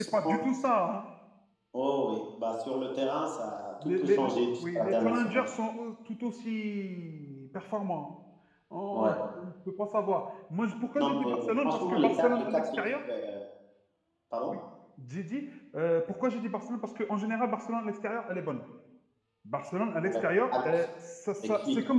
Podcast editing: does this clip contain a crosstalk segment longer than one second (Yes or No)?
Yes